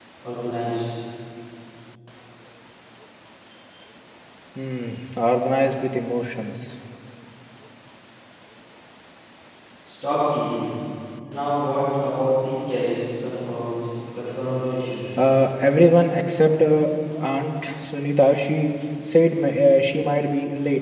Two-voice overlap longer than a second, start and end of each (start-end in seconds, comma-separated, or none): none